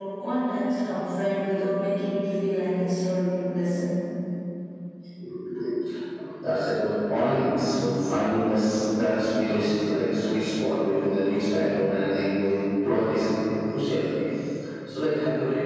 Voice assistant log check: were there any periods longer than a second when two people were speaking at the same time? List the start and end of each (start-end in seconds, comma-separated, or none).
none